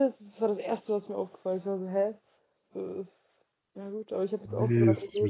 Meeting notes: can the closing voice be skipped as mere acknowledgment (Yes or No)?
No